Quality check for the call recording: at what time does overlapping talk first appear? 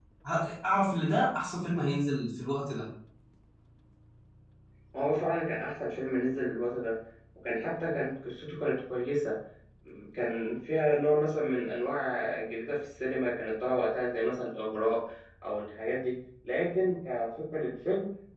none

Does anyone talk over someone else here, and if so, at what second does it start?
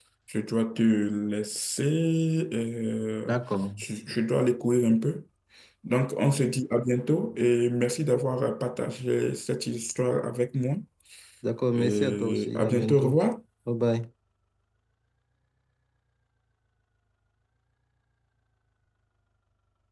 11.7 s

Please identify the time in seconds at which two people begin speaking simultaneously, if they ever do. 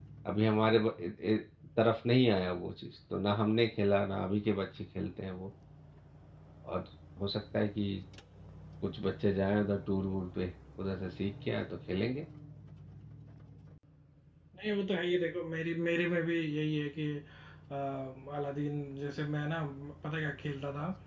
none

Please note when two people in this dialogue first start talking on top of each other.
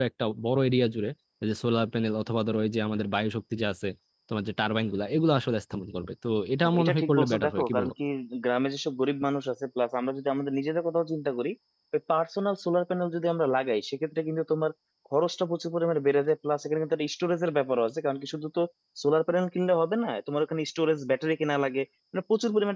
6.6 s

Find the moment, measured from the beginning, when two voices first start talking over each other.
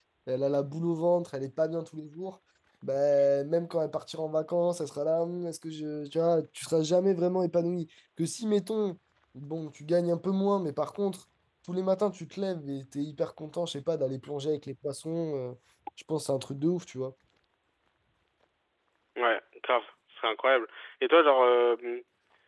none

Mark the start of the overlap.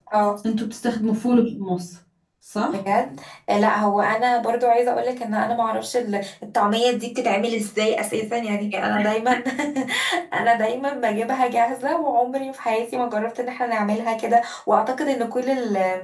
none

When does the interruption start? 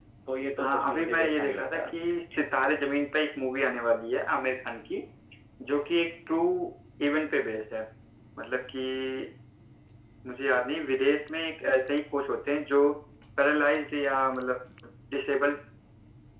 0.6 s

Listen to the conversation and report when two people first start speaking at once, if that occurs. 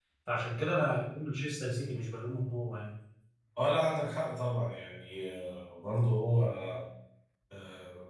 none

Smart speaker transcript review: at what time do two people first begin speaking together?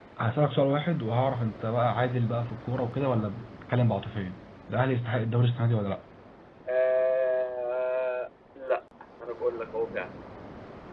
none

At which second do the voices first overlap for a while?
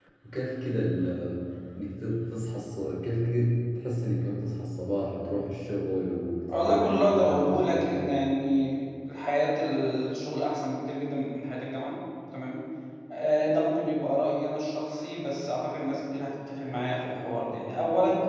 6.5 s

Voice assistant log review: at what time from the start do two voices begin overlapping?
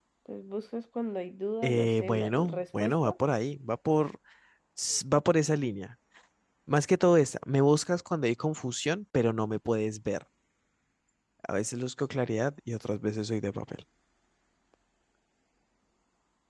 1.6 s

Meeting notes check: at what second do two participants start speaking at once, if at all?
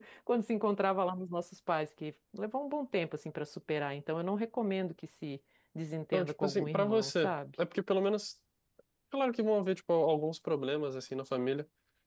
6.1 s

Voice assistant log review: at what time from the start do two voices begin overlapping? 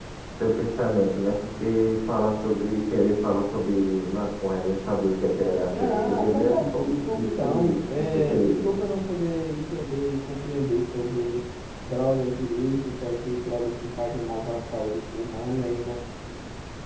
5.7 s

